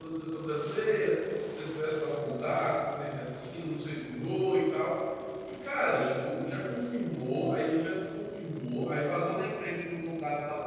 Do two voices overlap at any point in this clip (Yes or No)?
No